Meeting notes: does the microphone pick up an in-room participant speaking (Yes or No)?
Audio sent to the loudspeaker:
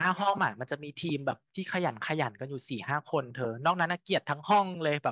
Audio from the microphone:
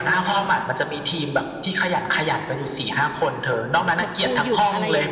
Yes